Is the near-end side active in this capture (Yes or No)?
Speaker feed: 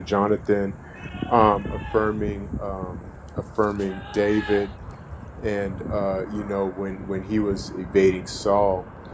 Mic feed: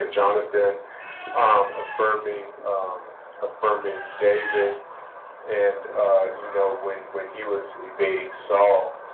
No